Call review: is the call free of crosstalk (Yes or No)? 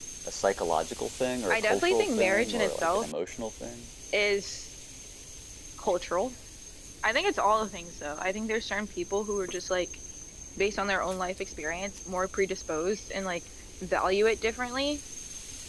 No